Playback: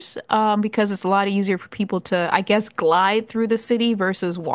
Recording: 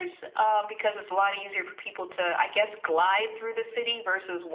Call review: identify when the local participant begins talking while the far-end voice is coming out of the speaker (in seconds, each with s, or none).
none